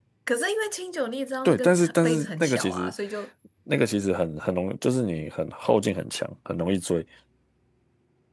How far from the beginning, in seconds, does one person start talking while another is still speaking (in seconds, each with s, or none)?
1.4 s